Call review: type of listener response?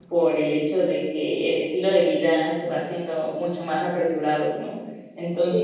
listening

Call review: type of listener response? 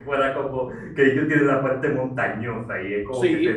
taking over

